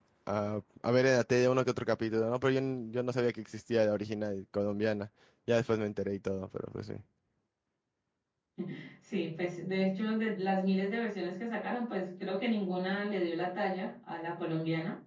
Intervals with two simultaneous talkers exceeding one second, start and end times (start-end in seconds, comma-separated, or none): none